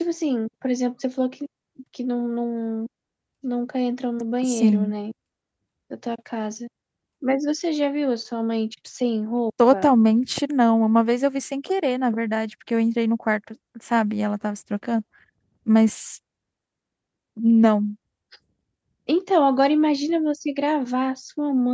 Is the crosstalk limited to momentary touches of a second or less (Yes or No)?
Yes